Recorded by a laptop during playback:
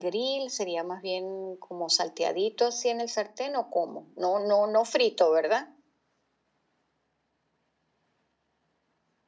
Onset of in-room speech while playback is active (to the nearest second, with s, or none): none